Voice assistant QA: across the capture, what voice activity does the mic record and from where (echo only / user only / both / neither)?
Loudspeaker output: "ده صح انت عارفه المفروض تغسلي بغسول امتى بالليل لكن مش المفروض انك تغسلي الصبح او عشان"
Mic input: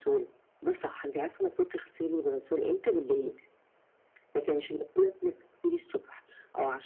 echo only